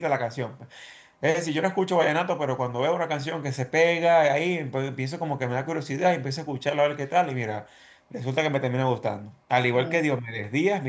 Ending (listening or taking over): listening